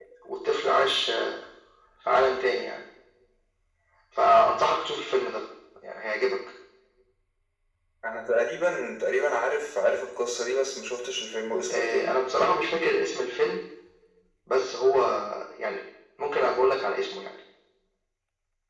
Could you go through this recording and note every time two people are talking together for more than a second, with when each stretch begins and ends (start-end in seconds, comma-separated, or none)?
none